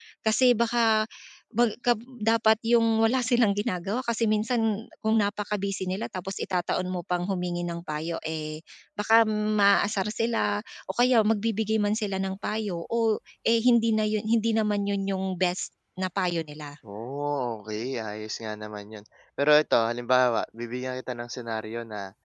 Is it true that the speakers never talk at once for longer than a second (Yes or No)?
Yes